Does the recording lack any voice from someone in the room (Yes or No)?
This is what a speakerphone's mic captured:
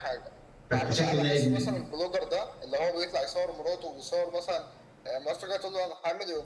No